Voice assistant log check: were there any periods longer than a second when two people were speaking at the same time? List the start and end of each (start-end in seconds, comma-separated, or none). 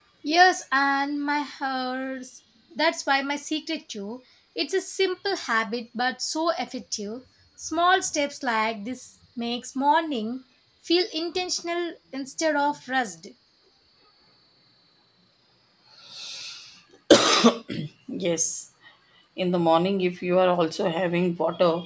none